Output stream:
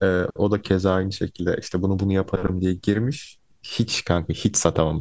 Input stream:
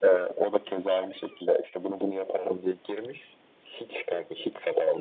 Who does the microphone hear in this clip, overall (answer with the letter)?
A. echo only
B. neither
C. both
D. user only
A